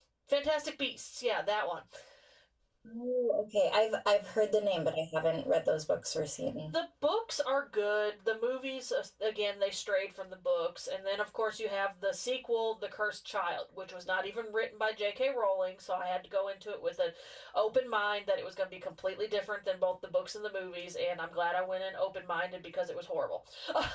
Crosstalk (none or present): none